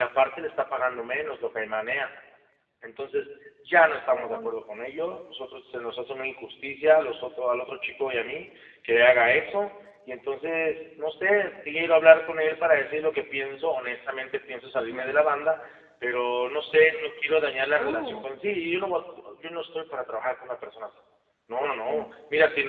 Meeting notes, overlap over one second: none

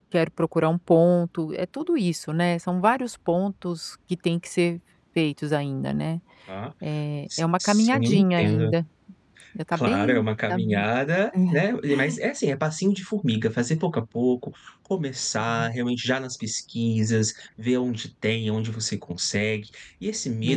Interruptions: present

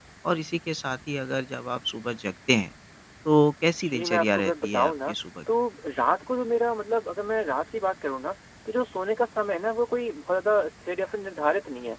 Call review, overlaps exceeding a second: present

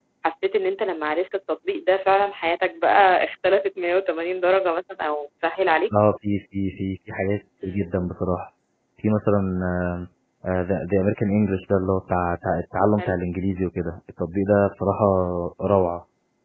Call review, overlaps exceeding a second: none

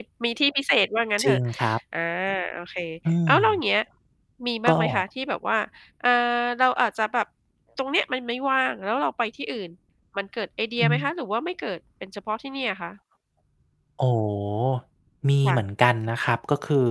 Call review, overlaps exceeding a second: none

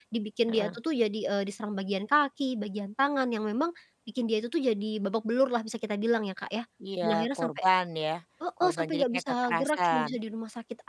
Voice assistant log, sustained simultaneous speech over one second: present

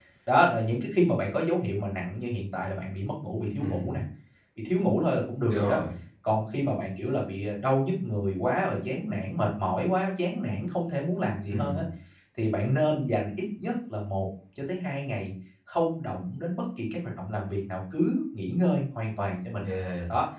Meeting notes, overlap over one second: none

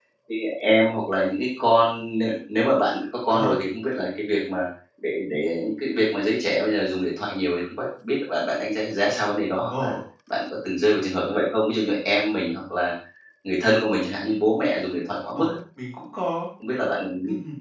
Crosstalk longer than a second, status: none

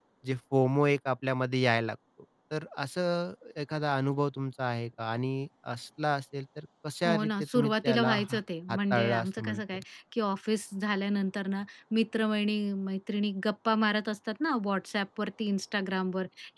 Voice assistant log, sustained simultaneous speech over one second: present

